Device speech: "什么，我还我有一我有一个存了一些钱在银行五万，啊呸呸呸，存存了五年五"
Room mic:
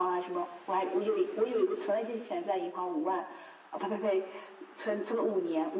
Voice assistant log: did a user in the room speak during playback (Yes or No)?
No